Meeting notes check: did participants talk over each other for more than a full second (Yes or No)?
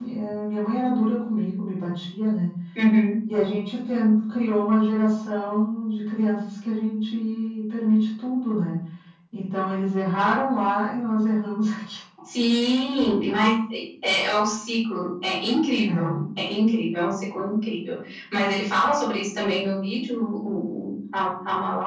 No